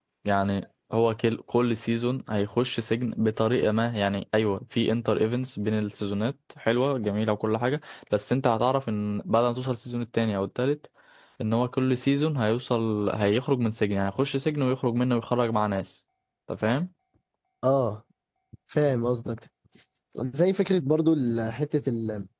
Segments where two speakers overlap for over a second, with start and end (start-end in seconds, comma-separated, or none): none